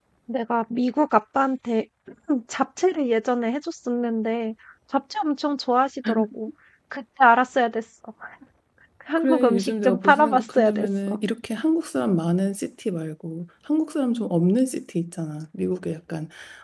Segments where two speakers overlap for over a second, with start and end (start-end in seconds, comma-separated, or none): 9.2-11.2